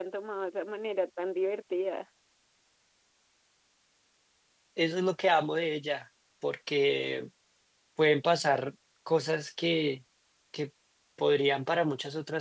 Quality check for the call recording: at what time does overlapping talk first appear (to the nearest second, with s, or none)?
none